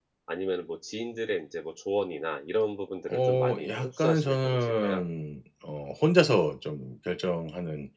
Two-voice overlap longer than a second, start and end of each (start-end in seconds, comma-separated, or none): 3.1-5.0